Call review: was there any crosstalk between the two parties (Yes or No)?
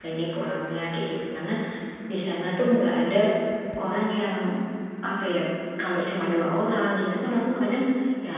No